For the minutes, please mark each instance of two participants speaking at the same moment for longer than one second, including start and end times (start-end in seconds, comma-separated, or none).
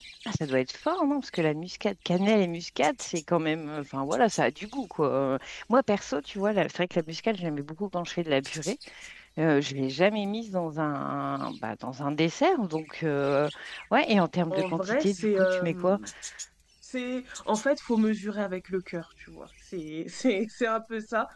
14.5-16.0